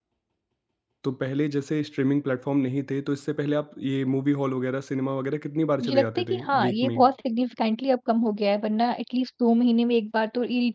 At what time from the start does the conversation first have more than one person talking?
5.8 s

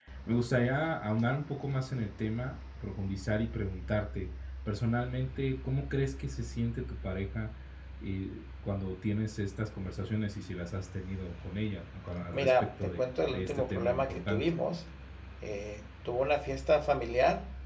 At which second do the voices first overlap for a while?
12.3 s

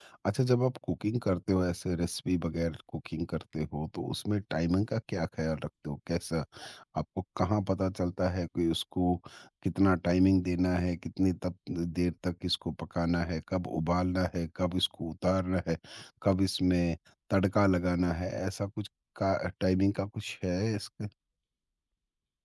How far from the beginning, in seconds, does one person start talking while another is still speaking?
none

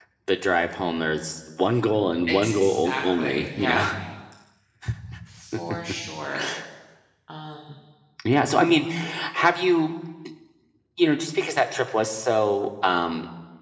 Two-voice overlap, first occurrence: 2.3 s

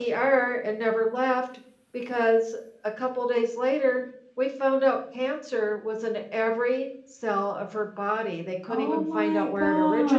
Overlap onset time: 8.7 s

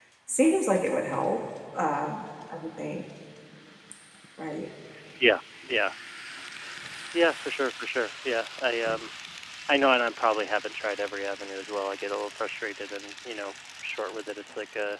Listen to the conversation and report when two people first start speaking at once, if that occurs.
none

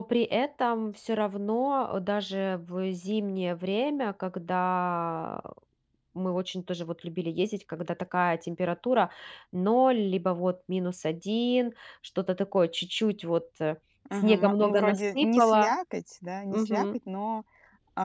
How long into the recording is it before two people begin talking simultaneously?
14.2 s

